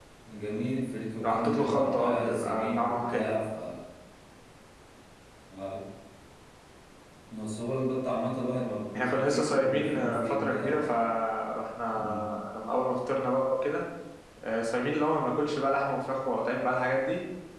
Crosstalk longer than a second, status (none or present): present